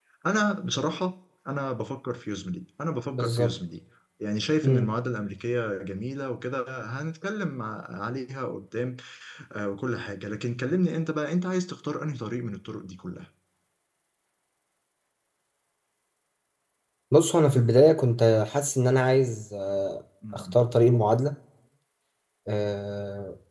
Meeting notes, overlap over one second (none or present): none